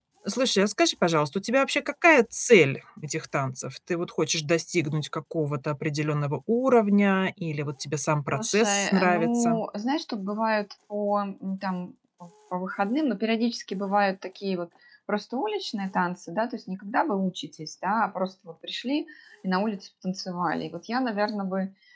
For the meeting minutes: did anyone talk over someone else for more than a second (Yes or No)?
Yes